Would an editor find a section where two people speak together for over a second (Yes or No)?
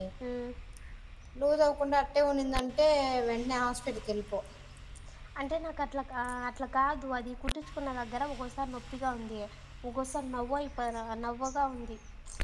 No